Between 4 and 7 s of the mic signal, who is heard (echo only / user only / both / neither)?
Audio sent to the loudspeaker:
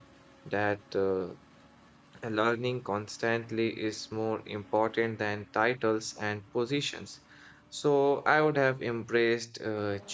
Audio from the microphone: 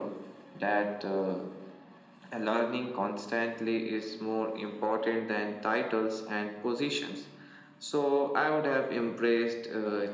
echo only